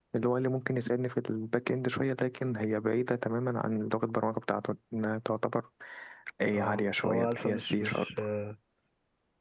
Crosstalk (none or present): present